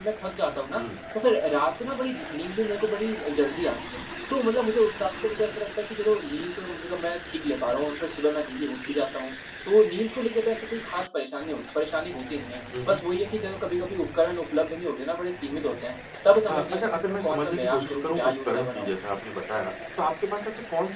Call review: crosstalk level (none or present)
present